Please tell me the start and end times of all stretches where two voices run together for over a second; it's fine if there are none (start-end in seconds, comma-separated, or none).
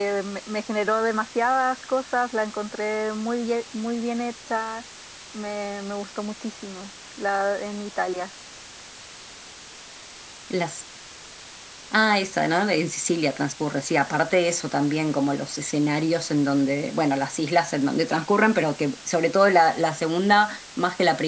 none